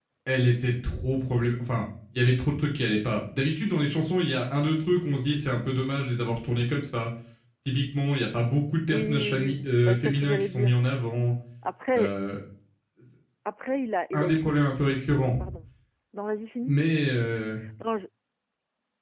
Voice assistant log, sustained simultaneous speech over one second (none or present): present